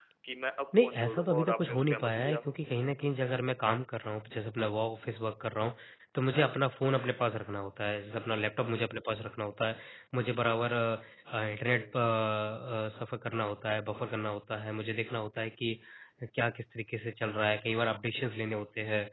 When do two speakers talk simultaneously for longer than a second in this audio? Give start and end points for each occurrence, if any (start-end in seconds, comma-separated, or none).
0.8-2.5